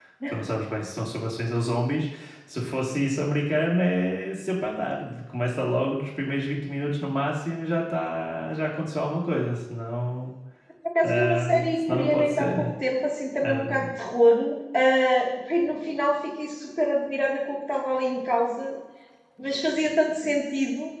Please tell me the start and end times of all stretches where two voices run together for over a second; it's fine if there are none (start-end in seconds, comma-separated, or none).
11.0-12.7